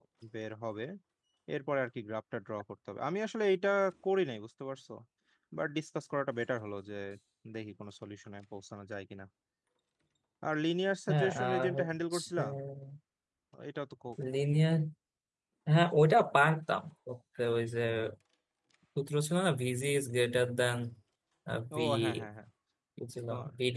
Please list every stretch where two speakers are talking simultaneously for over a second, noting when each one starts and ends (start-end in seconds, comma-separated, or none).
11.1-12.4